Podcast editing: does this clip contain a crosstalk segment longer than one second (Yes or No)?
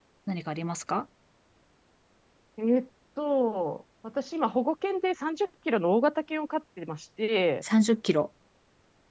No